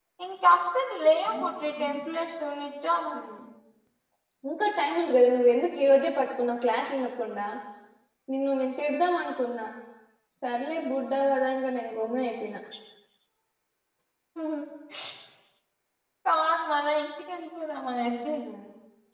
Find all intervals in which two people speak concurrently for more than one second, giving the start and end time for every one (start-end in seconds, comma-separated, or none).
none